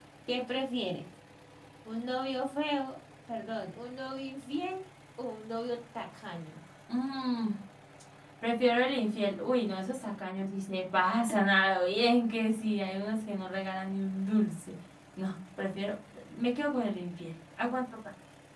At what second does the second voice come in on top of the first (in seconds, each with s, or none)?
none